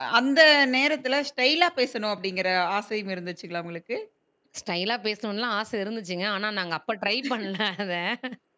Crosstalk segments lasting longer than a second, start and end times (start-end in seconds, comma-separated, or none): none